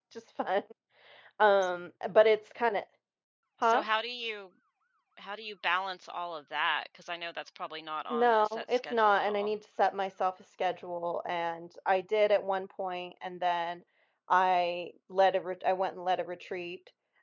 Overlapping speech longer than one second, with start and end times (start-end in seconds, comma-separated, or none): 8.1-9.5